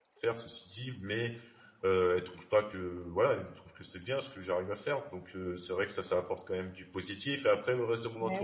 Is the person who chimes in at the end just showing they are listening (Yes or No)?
Yes